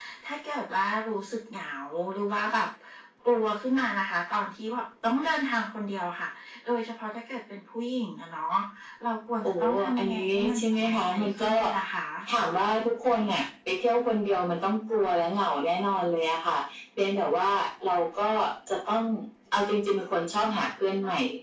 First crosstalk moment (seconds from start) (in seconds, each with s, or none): 9.4 s